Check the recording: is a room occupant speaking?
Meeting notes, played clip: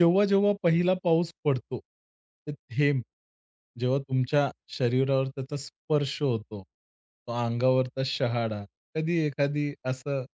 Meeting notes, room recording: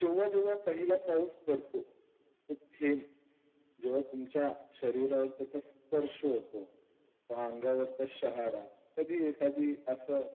No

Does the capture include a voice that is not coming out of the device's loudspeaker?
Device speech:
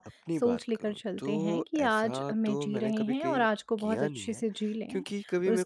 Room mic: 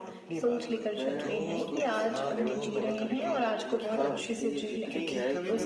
Yes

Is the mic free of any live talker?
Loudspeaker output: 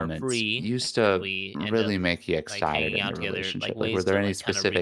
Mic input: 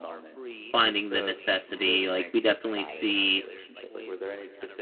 No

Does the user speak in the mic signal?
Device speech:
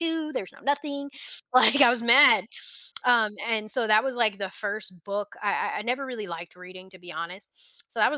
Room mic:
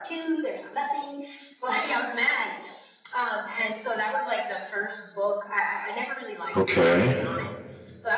Yes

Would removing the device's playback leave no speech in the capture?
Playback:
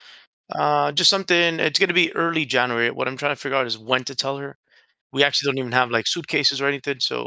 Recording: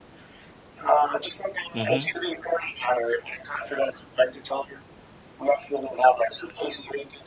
No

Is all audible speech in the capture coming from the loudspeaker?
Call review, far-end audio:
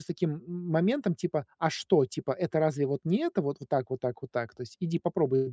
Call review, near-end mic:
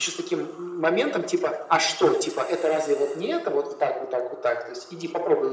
Yes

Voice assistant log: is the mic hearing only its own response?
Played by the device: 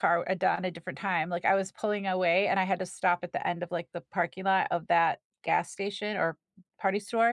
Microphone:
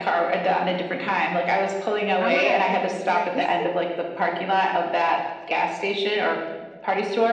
No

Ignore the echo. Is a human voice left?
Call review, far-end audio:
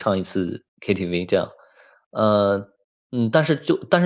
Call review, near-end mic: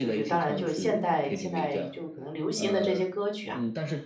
Yes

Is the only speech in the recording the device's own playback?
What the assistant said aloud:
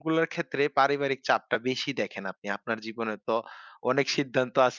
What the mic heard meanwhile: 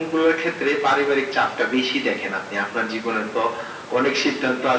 Yes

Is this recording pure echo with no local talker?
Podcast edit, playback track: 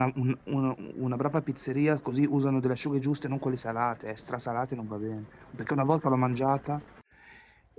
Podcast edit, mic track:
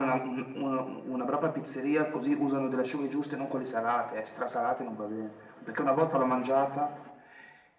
Yes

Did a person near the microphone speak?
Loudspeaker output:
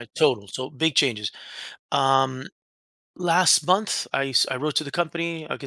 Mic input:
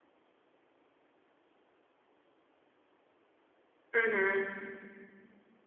Yes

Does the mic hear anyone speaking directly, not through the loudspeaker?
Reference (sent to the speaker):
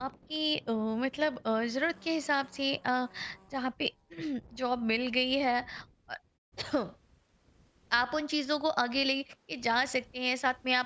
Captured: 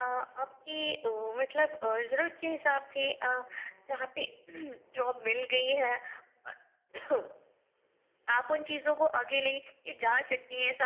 No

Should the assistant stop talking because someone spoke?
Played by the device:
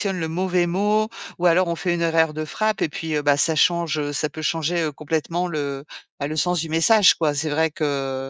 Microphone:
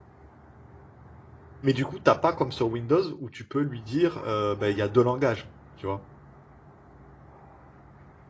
Yes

